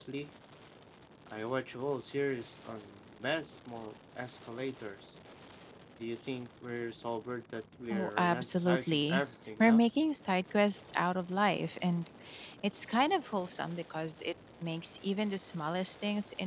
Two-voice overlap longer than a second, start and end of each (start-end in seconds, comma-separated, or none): 7.9-9.2